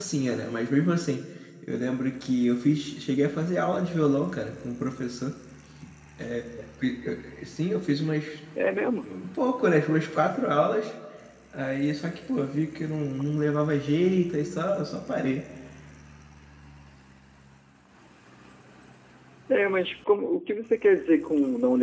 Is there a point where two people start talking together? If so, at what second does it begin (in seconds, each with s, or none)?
none